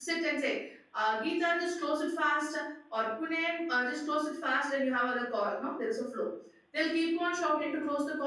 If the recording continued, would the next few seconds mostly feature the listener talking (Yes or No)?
No